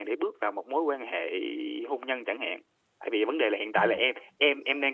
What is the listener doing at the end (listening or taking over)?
listening